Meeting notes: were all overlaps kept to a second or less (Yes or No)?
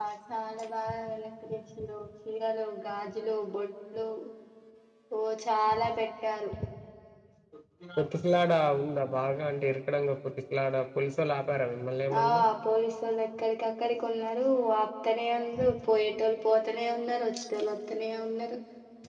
Yes